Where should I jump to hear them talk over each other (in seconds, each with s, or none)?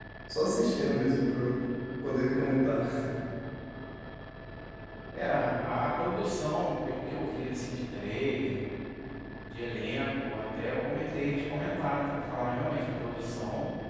none